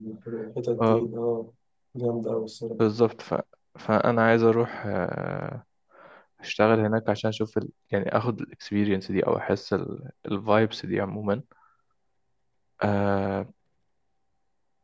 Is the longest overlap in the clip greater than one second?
No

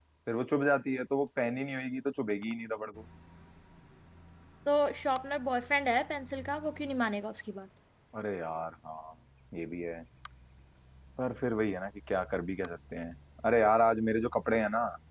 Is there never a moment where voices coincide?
Yes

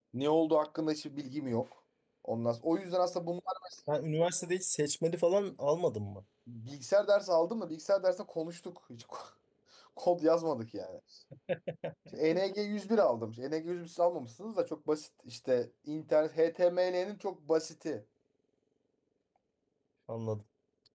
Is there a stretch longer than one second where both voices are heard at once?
No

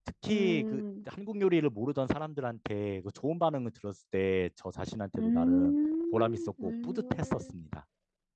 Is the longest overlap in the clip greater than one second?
Yes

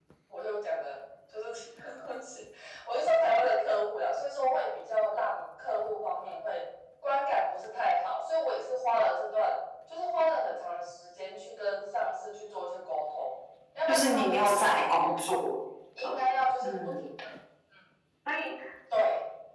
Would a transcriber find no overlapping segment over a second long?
No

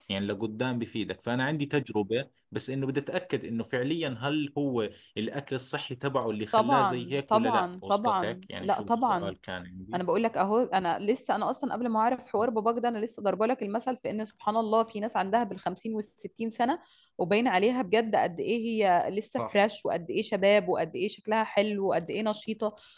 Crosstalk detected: Yes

